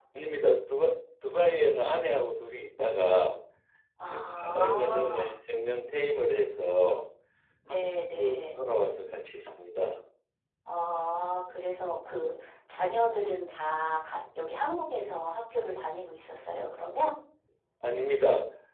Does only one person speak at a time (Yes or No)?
No